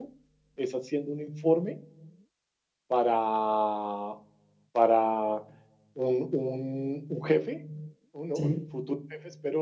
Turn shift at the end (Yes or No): No